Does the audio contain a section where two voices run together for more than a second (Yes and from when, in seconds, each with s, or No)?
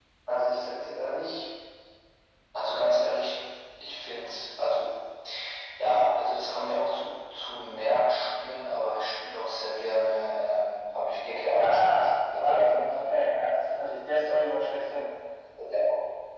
Yes, from 11.6 s